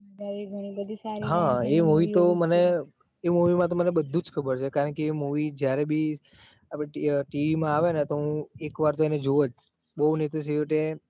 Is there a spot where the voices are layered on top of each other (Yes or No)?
Yes